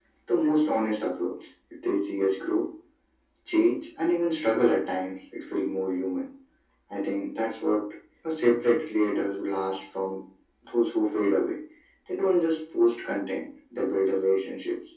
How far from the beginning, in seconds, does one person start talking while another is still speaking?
none

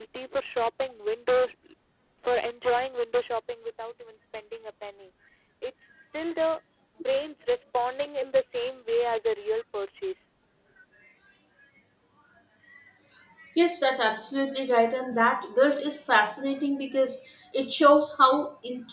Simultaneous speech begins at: none

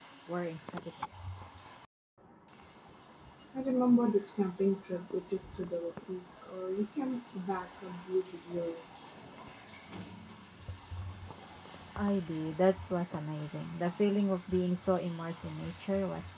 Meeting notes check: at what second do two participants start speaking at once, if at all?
none

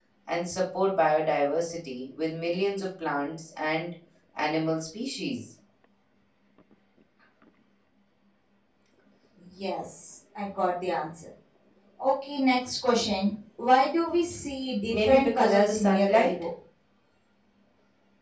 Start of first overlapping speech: 14.9 s

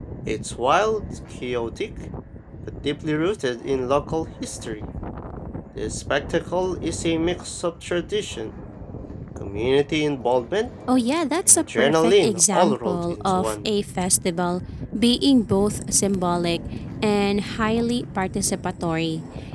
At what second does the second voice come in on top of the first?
11.5 s

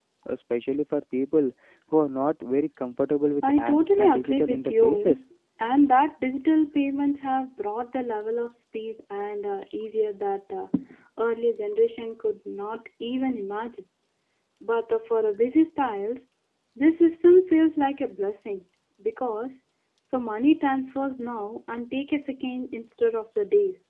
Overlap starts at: 3.4 s

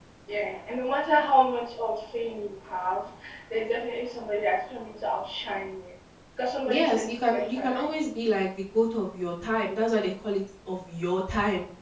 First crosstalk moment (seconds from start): 6.7 s

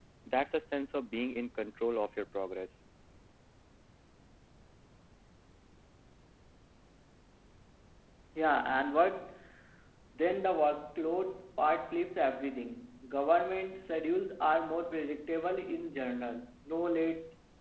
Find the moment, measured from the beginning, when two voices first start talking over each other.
none

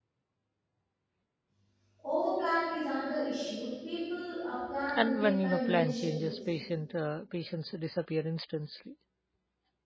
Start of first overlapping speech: 5.0 s

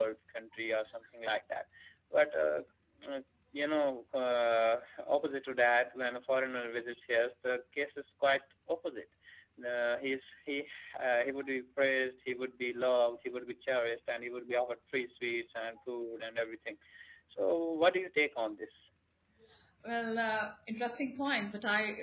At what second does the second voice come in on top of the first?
none

